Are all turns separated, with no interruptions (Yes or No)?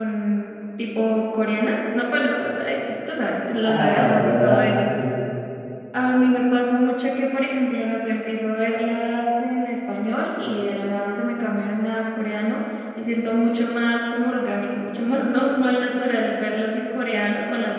No